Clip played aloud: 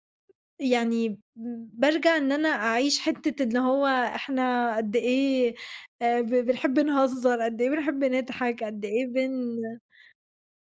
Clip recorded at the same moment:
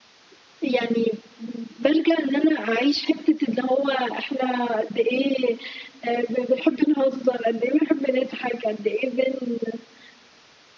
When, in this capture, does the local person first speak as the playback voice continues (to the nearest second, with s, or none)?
none